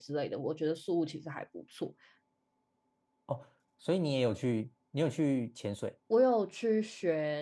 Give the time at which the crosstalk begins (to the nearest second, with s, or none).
none